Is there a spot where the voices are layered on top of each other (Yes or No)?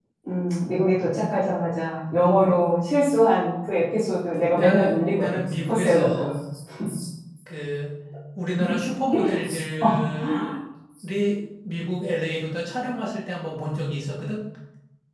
Yes